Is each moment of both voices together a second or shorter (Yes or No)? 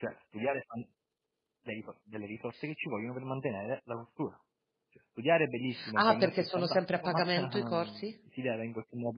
No